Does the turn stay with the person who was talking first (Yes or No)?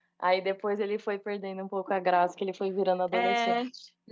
No